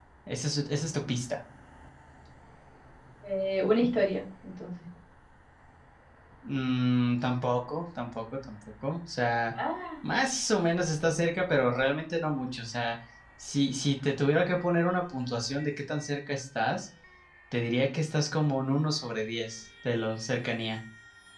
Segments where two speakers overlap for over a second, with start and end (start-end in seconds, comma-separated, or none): none